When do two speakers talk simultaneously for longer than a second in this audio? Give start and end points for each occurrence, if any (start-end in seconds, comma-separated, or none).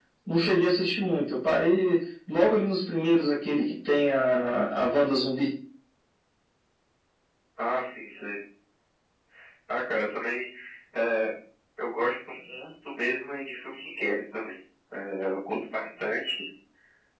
none